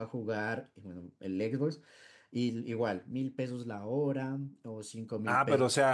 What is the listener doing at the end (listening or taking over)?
taking over